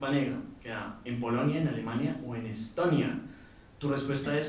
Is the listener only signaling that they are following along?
No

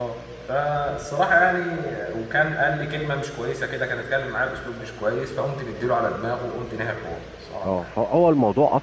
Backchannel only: No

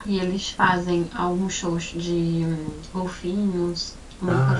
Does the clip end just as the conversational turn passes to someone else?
Yes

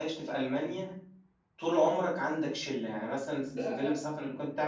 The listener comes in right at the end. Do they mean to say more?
No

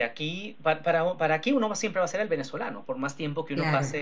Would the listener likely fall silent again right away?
Yes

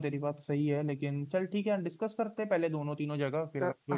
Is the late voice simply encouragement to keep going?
No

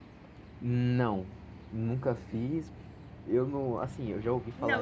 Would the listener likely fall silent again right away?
No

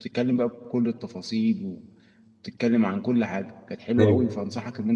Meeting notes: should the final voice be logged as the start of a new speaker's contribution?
No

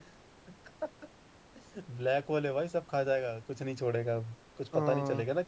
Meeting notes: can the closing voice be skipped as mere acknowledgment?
Yes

